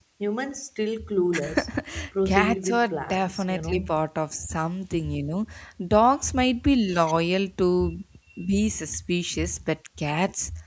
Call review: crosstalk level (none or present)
present